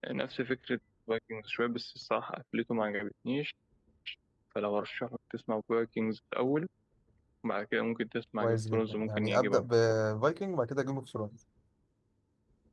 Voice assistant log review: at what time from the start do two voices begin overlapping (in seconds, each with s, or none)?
8.4 s